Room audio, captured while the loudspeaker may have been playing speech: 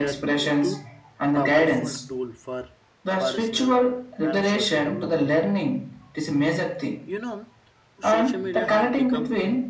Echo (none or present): present